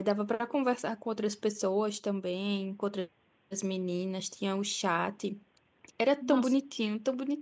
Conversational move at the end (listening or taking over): listening